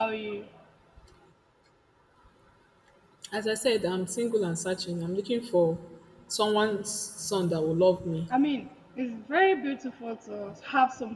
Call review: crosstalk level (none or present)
none